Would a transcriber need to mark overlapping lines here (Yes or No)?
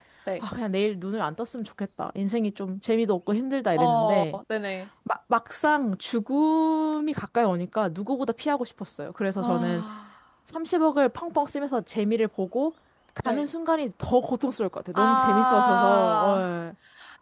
Yes